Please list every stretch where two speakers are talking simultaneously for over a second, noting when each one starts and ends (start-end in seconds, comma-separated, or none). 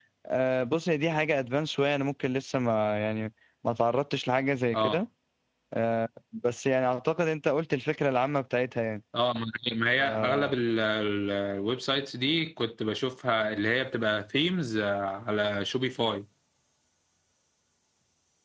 none